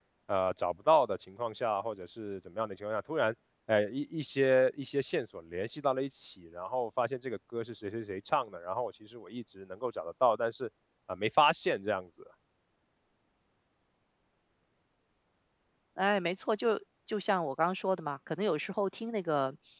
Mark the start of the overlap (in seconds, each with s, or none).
none